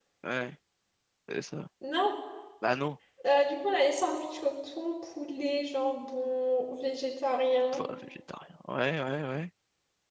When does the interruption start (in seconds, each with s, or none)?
none